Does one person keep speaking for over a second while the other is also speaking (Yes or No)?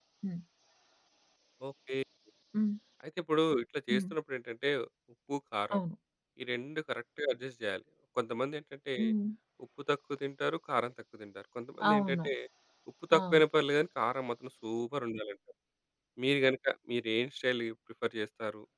No